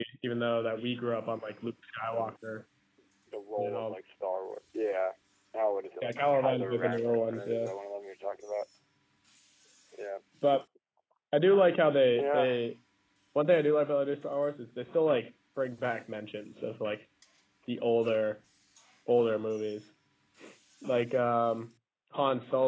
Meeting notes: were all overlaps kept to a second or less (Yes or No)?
No